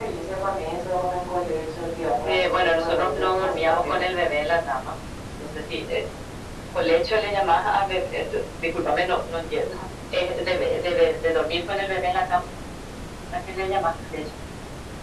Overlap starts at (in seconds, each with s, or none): 2.2 s